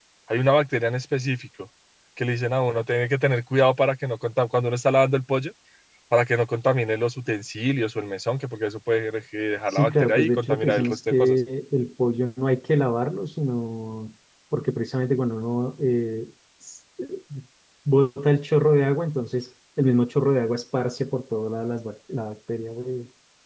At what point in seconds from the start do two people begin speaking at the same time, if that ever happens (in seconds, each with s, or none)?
9.7 s